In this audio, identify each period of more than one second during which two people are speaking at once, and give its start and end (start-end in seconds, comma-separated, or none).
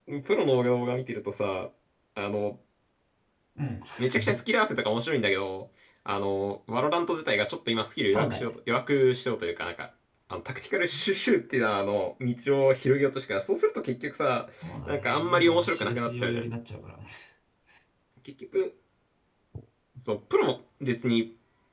14.9-16.4